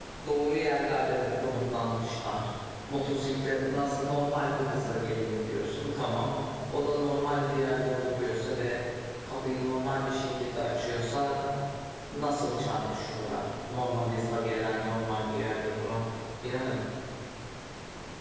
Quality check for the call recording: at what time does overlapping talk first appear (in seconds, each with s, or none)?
none